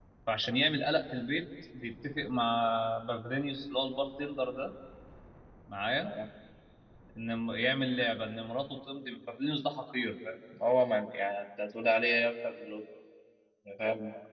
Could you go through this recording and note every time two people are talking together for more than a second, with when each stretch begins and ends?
none

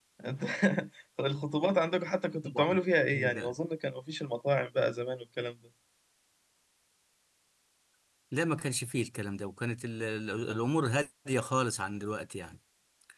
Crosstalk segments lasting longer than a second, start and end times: none

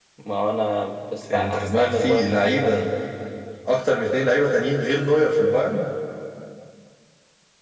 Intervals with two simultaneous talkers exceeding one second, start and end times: 1.3-2.9

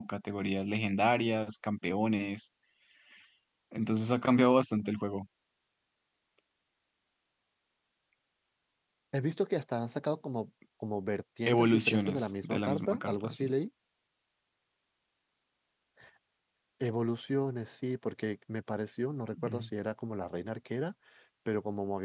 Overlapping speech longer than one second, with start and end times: 11.5-13.5

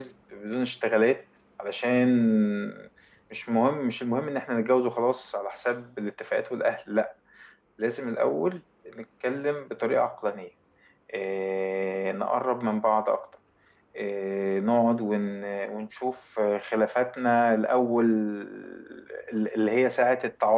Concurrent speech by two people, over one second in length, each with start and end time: none

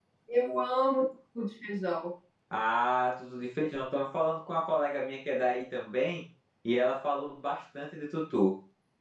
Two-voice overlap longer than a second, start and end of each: none

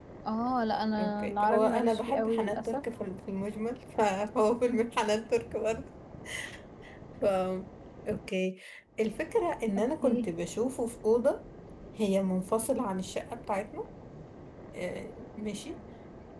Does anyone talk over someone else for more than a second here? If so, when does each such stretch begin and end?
1.0-2.8

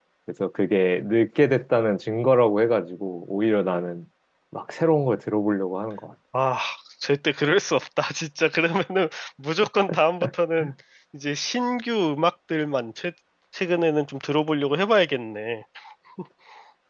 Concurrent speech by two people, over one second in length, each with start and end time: none

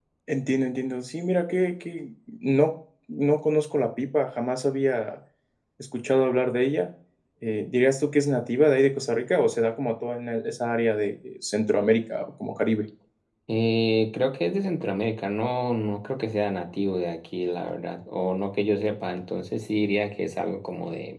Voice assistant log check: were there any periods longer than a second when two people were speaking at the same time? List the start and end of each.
none

